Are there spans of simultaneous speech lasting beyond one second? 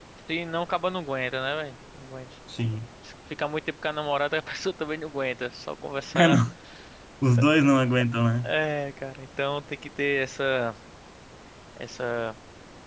No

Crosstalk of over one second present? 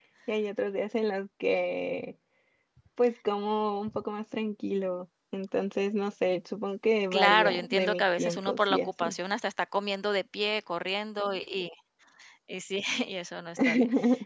Yes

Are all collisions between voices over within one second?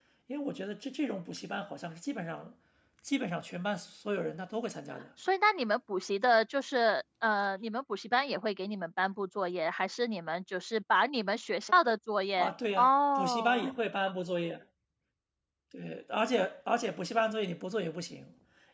No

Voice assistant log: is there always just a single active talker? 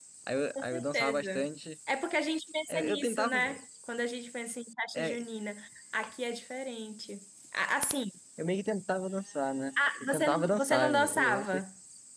No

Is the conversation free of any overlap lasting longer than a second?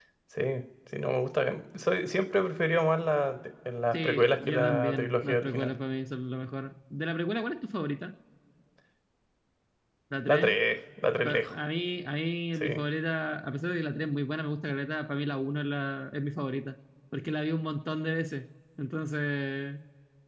No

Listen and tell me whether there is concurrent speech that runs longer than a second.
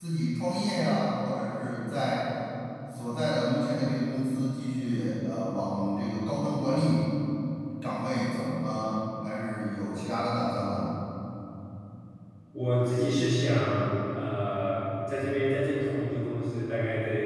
No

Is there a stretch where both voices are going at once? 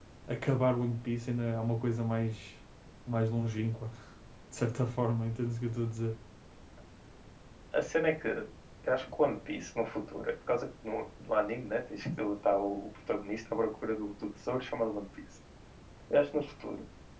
No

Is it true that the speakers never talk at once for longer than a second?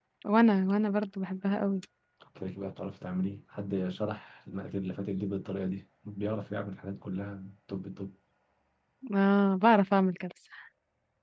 Yes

